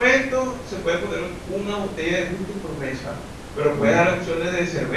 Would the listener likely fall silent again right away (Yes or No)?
Yes